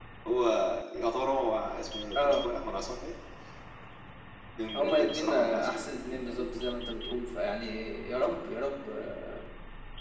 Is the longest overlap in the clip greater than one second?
Yes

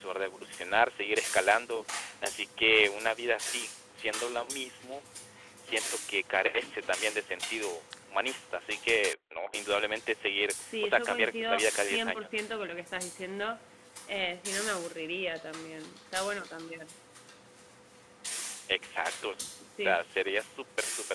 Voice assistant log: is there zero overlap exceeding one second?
No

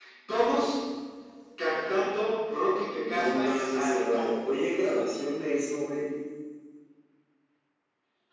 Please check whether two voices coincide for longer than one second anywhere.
Yes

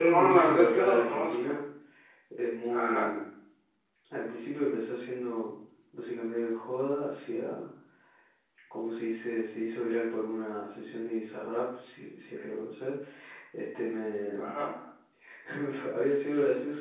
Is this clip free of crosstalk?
No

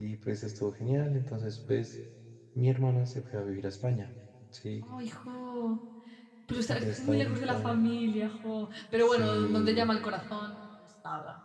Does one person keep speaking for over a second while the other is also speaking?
Yes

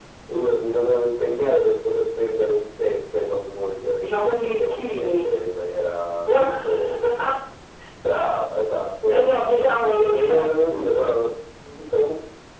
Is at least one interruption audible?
Yes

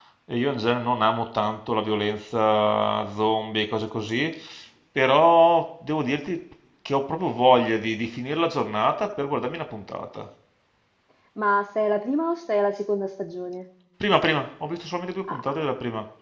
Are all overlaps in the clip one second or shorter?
Yes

